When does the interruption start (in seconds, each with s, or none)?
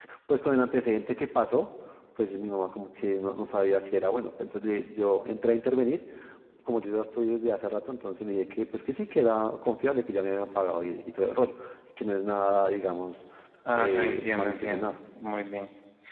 13.7 s